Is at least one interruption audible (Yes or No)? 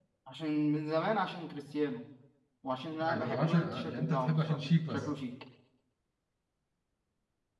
Yes